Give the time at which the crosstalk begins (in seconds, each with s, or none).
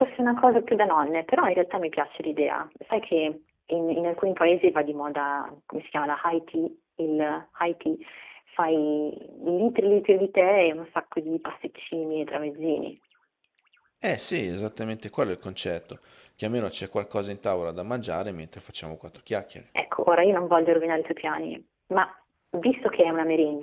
none